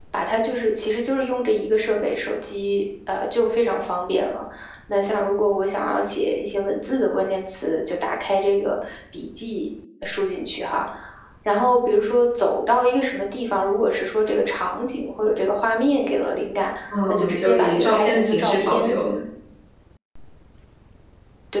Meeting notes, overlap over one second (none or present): present